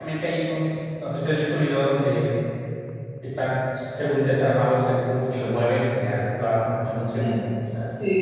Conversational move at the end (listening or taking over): taking over